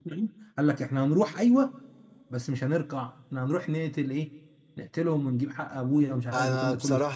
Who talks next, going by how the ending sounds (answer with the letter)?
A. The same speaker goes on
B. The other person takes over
B